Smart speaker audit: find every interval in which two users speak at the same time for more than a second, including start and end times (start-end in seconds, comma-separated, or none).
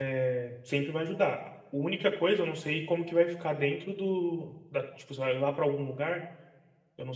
none